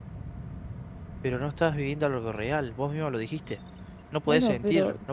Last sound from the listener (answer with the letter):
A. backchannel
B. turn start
B